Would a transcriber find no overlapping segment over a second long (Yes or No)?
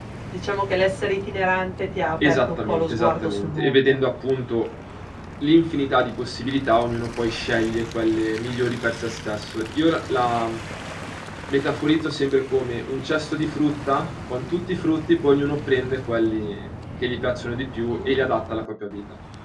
No